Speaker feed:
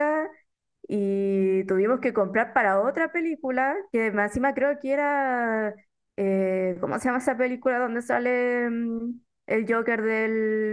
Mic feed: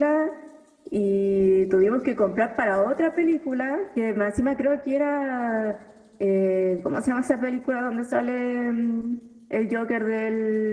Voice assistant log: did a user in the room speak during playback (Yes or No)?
No